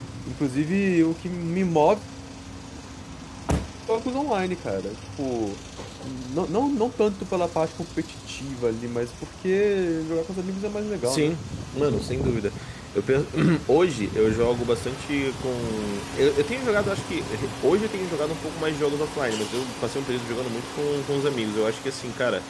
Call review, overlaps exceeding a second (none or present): none